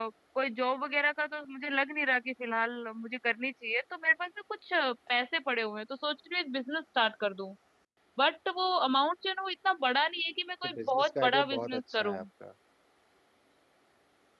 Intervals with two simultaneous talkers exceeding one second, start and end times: 10.8-12.2

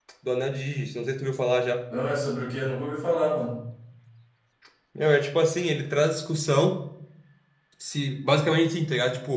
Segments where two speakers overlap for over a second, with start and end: none

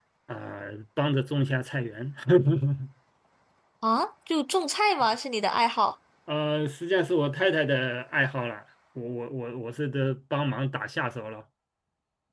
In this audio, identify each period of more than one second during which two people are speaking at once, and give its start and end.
none

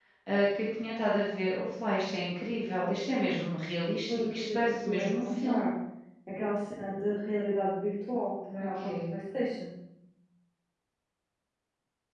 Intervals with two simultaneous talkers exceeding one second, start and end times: 4.1-5.7

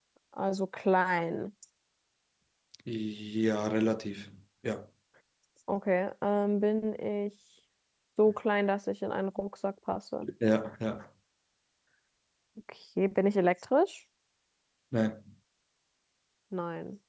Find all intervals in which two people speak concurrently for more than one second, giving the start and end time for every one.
none

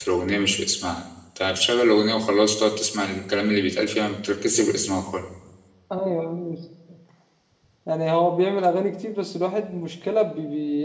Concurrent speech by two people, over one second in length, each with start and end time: none

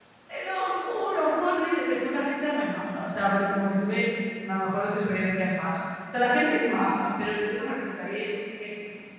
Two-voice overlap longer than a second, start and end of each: none

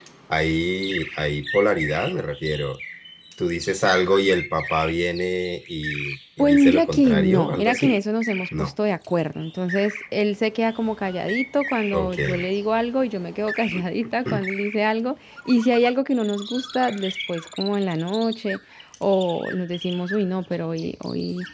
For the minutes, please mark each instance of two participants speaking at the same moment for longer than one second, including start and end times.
6.4-8.0

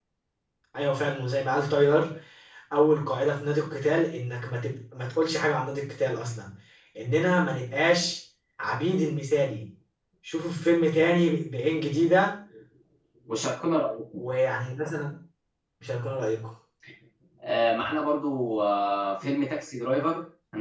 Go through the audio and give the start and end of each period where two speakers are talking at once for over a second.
none

